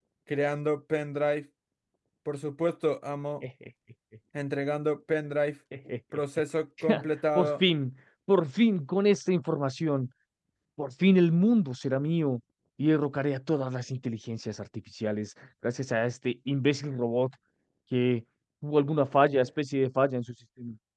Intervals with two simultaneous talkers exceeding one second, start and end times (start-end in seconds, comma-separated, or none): none